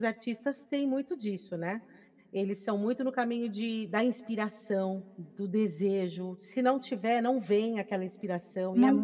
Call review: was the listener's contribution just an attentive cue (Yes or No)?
Yes